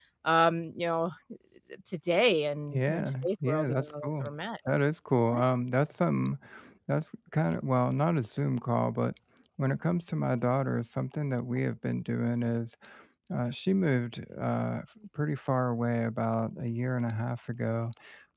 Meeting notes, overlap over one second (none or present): present